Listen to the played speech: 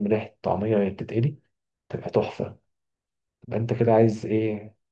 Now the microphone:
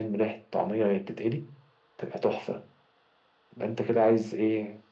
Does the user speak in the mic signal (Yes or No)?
No